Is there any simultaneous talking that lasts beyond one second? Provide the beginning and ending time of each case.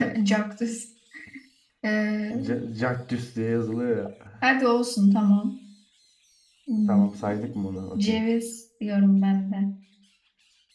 none

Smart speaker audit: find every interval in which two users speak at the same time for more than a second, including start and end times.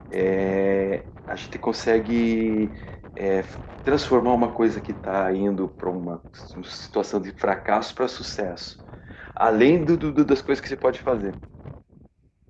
none

